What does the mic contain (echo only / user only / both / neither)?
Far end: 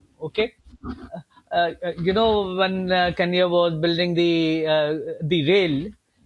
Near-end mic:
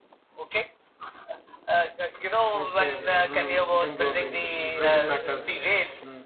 both